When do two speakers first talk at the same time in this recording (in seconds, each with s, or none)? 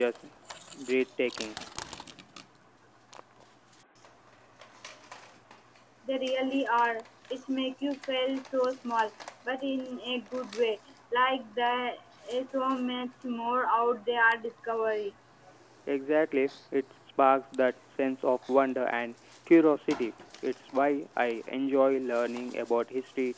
none